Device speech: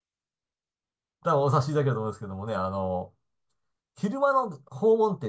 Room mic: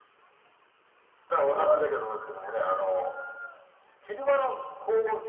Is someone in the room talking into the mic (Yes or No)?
Yes